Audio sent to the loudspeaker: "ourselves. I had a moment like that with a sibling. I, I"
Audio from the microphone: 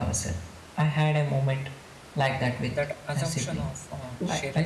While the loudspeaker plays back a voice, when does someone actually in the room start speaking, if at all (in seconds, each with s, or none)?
2.7 s